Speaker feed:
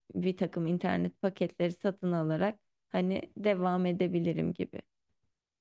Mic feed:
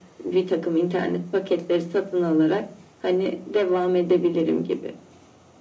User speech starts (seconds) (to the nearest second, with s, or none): none